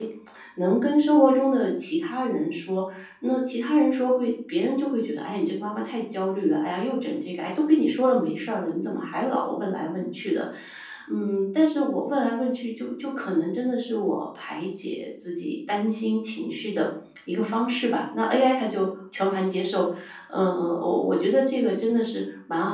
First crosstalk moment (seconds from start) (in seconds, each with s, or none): none